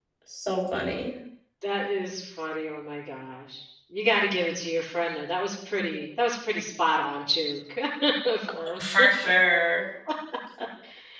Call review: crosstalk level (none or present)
none